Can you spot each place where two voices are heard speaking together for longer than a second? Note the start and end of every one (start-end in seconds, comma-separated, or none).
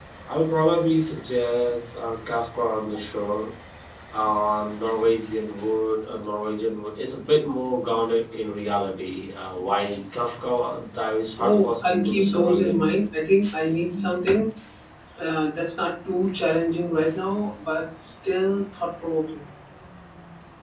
11.4-12.8